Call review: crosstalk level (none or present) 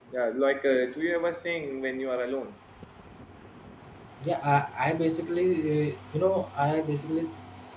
none